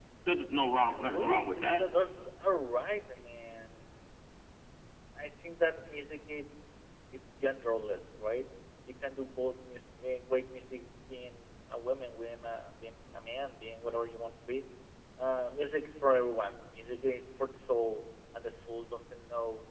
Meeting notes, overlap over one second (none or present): present